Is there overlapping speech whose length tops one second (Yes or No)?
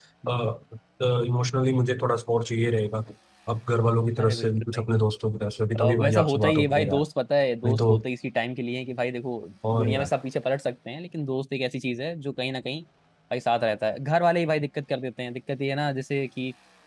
Yes